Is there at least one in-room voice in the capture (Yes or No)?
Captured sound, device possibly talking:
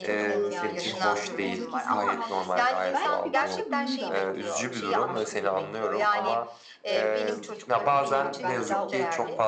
Yes